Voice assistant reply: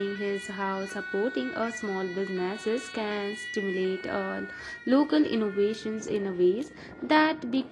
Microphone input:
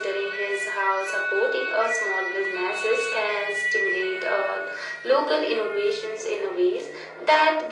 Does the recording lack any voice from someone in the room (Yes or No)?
Yes